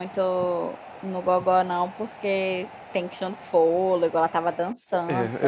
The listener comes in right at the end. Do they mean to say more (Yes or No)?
Yes